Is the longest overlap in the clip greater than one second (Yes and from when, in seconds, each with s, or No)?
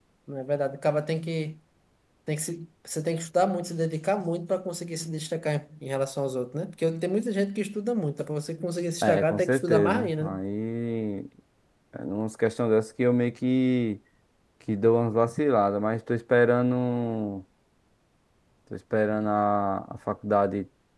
Yes, from 9.0 s